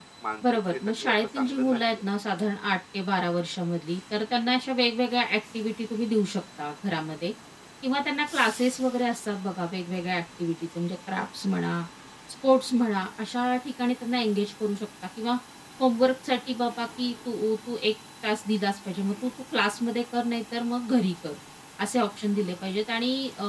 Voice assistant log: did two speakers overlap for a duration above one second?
Yes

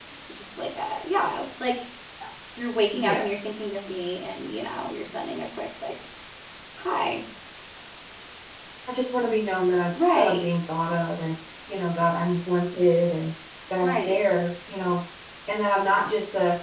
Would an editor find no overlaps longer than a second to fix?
Yes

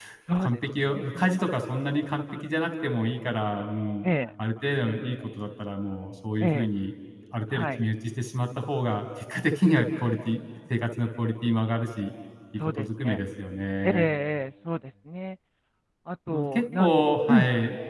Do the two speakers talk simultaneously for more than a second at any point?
Yes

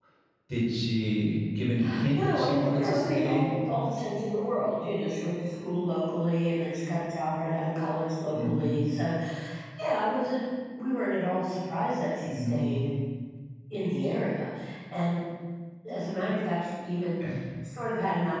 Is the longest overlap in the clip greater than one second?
Yes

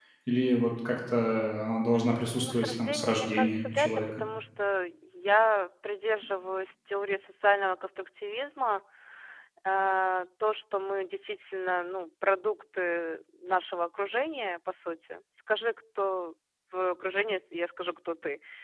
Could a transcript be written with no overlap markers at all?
No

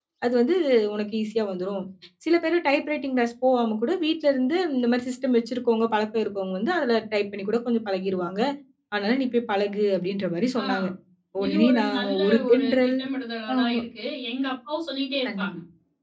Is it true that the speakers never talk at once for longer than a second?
No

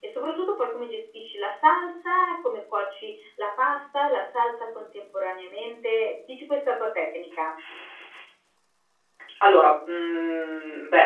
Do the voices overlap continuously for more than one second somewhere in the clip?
No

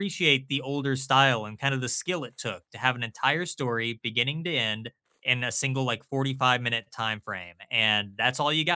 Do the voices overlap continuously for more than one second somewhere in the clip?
No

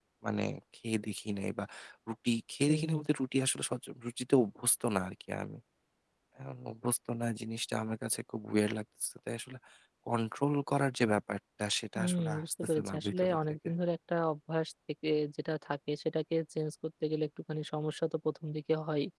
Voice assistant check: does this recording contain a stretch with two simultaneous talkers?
Yes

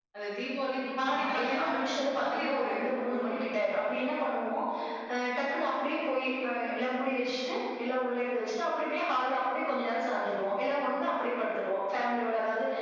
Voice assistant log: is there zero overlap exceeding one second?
No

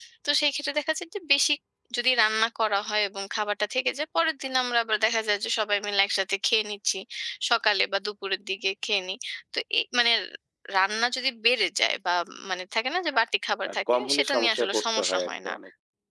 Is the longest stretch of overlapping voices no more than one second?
No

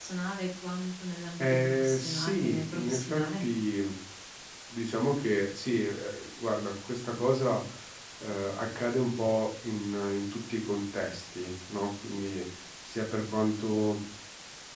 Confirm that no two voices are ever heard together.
No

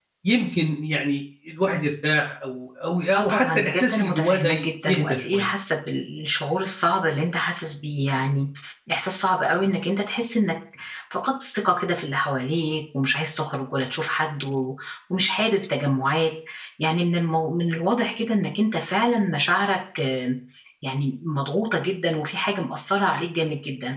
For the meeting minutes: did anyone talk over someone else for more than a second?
Yes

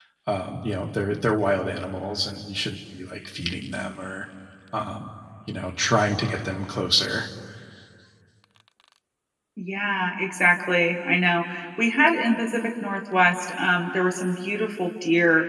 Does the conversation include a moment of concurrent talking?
No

